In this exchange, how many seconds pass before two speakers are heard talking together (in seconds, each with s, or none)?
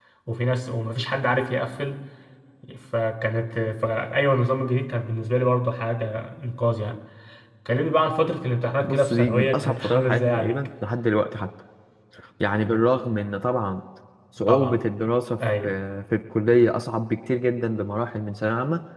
8.8 s